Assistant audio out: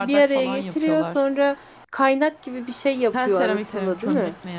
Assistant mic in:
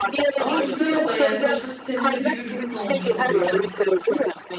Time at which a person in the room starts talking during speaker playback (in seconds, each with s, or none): 0.4 s